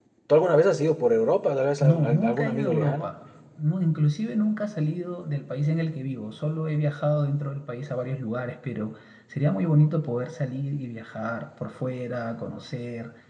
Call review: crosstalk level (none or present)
present